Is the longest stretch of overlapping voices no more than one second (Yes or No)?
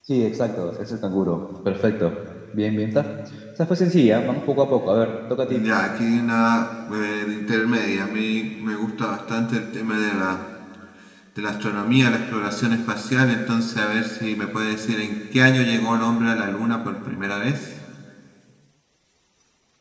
Yes